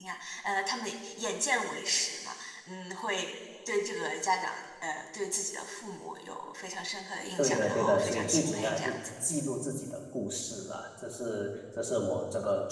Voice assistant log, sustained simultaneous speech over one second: present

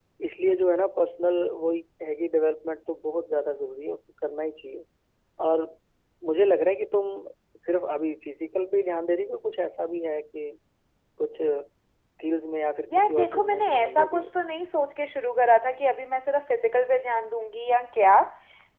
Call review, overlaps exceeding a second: present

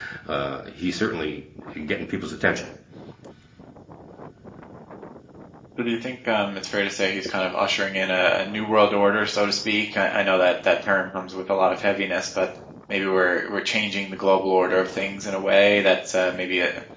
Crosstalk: none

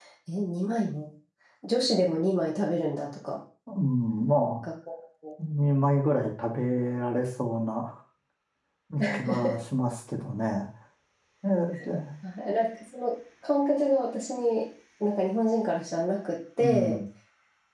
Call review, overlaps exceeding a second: none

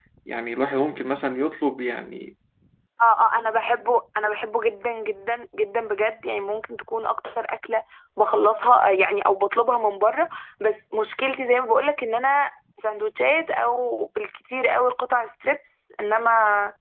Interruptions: none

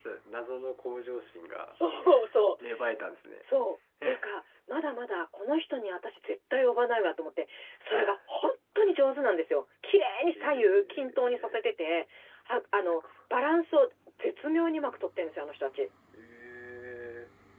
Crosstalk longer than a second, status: present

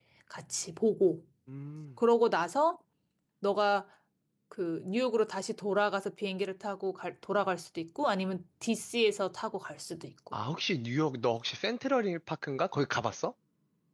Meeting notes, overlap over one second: none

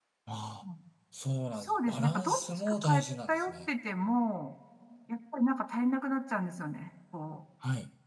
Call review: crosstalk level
present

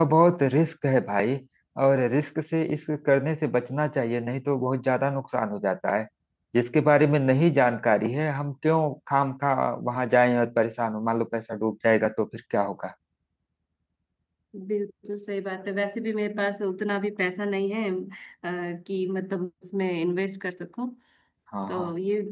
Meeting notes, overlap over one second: none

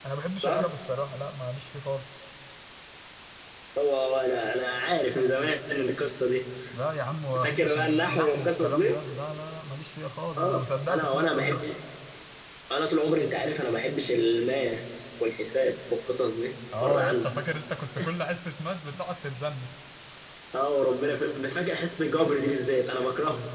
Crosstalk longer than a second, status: present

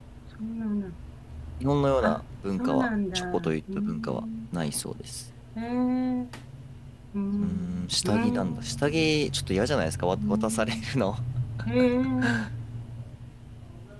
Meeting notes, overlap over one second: present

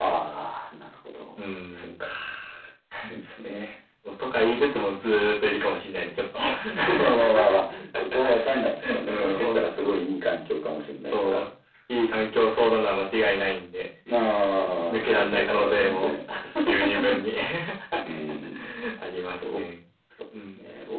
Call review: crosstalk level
present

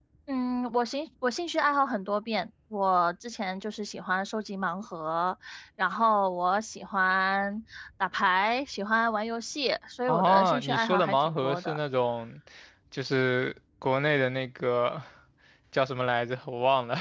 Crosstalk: present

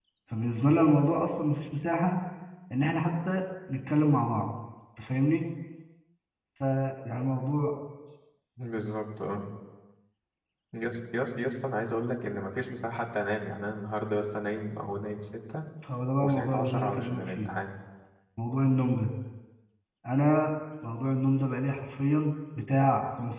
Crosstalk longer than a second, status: present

